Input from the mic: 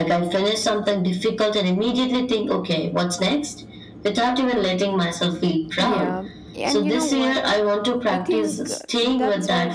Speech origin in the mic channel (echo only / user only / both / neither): both